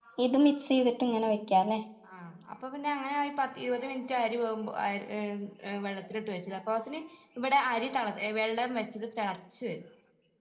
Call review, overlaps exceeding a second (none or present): none